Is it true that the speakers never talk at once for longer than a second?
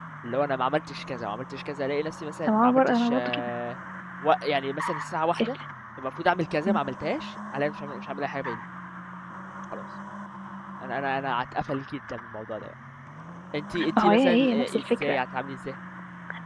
No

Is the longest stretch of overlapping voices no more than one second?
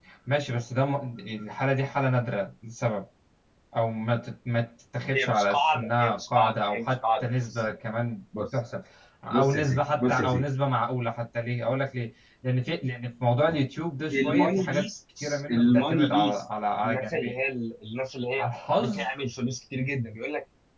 No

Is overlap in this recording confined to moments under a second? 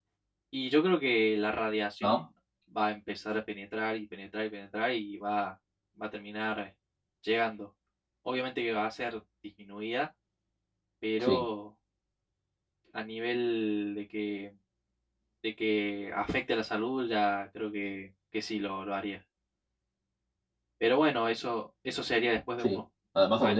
Yes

